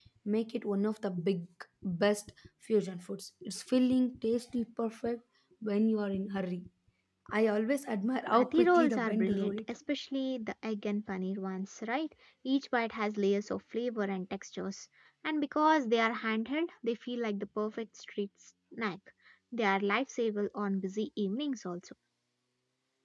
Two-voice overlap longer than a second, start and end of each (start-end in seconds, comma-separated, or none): 8.3-9.6